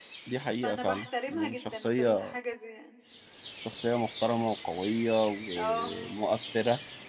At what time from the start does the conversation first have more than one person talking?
1 s

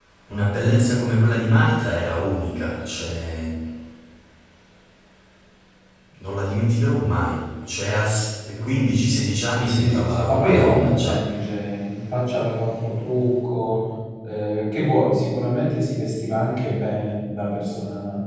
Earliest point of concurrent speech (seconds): 10 s

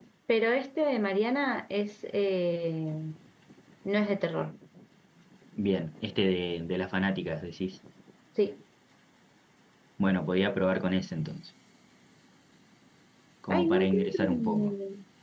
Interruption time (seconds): 14 s

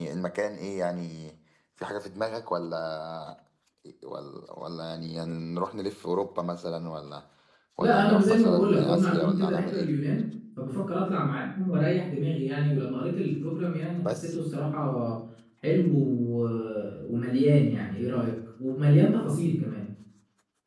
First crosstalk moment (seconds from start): 8 s

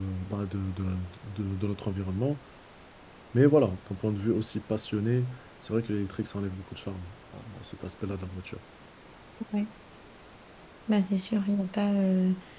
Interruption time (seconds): none

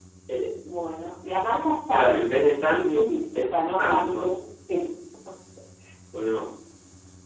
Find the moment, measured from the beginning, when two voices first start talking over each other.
2 s

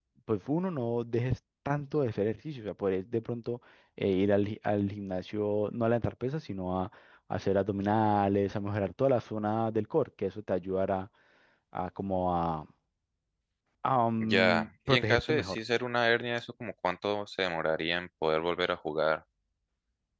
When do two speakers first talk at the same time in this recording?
14 s

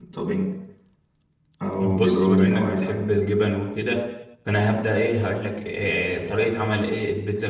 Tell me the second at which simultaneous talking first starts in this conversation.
2 s

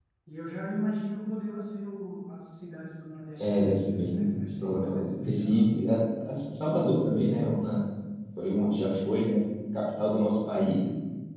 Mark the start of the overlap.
3 s

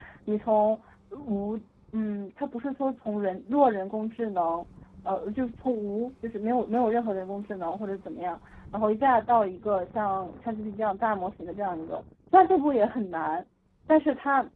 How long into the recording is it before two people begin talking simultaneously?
none

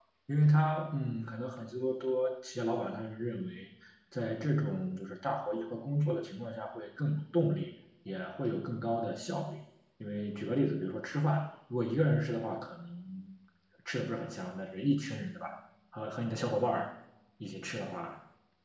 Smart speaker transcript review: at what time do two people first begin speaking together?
none

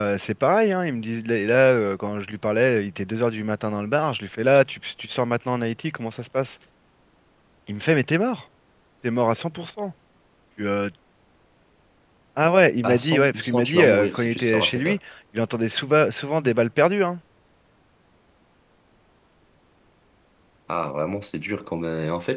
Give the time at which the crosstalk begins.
13 s

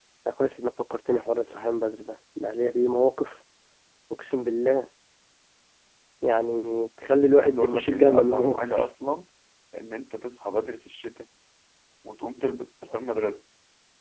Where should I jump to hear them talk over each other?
7 s

